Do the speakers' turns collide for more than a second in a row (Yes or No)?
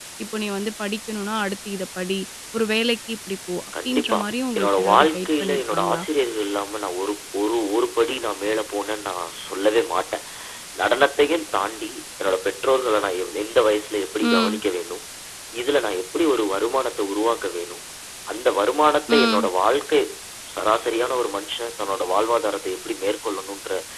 Yes